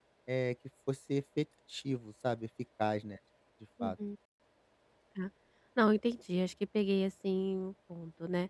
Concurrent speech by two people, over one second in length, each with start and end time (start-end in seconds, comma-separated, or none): none